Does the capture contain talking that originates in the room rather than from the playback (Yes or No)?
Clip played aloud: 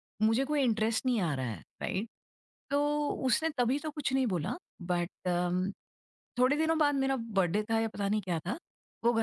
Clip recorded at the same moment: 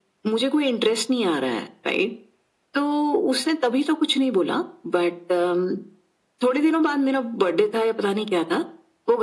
No